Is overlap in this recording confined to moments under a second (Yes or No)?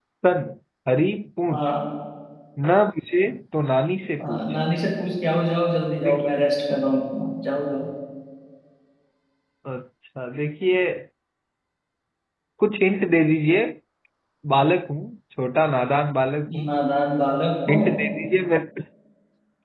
Yes